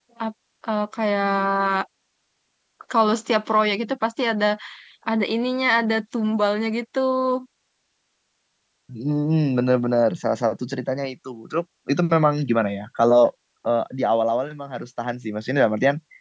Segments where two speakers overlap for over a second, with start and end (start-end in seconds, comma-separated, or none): none